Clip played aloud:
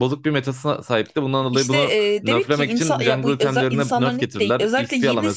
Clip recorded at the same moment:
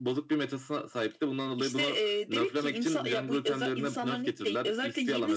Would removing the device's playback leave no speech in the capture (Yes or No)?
Yes